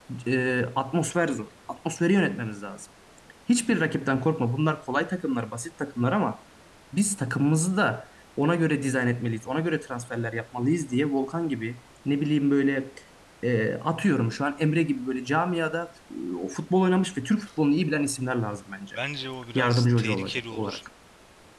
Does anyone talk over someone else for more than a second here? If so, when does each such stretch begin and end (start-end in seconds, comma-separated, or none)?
19.6-20.8